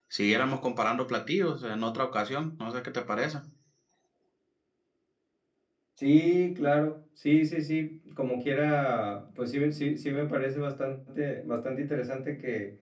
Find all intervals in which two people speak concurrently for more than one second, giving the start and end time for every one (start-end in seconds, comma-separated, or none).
none